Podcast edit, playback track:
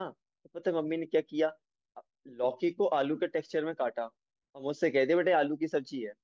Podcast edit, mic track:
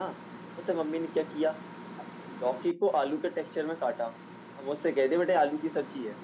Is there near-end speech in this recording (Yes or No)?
No